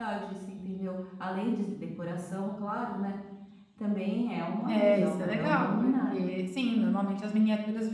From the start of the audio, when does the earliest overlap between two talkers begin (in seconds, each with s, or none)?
4.7 s